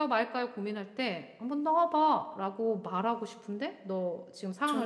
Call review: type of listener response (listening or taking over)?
taking over